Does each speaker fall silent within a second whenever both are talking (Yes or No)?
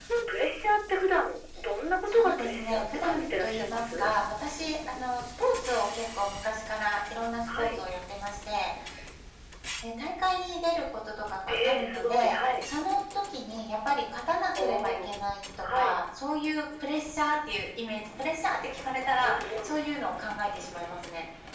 No